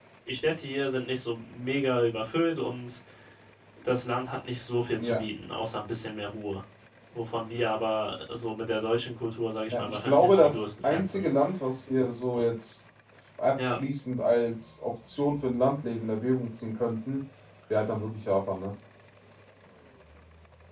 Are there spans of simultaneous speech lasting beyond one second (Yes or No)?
Yes